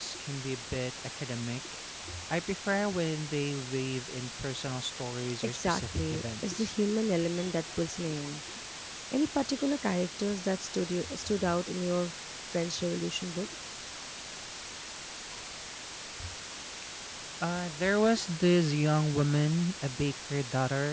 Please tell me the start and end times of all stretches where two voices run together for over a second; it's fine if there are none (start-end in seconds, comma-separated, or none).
5.4-6.7